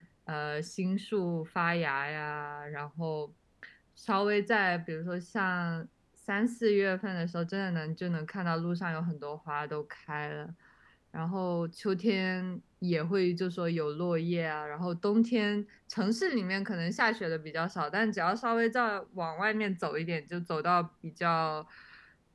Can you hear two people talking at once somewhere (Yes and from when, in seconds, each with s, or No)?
No